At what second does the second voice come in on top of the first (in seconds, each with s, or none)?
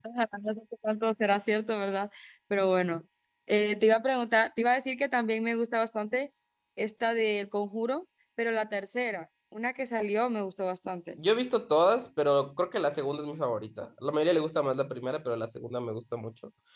none